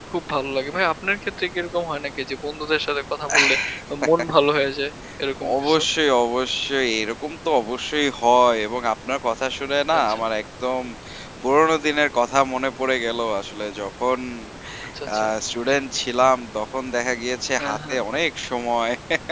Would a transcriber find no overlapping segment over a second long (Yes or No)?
Yes